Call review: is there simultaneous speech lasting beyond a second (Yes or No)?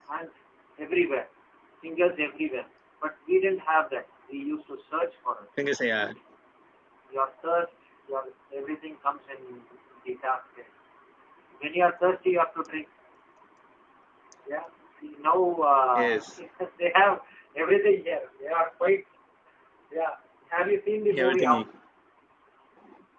No